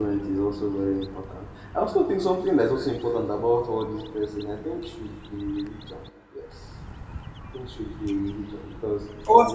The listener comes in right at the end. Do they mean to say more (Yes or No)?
No